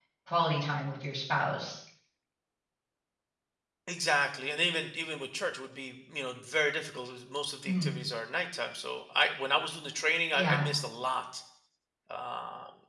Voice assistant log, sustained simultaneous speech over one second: none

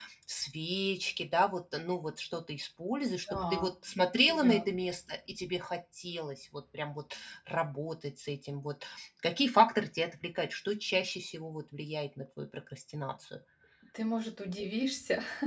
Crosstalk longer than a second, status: none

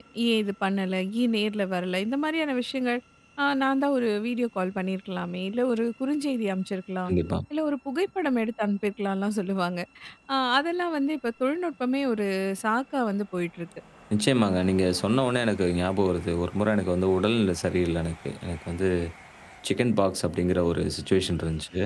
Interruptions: none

